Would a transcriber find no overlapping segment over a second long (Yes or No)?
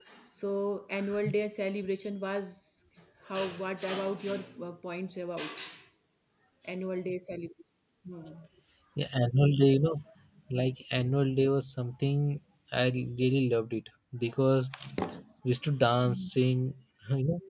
Yes